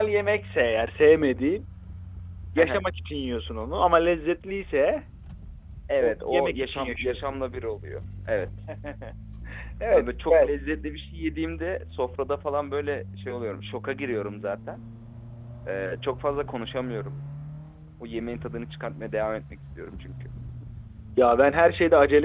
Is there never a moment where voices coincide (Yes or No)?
No